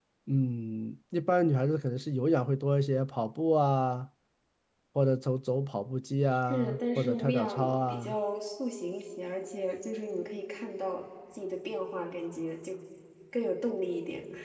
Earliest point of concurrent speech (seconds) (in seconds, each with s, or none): 6.5 s